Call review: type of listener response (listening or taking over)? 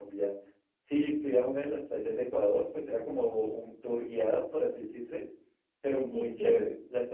listening